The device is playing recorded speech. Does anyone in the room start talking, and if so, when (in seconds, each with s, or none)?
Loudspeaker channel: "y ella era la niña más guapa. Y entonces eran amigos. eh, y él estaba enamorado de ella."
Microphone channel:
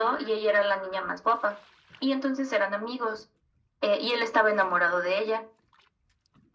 none